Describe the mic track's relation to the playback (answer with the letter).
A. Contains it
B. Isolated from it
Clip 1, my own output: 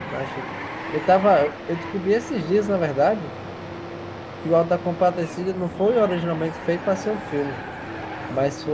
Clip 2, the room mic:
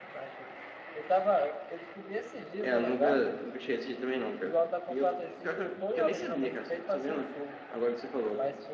A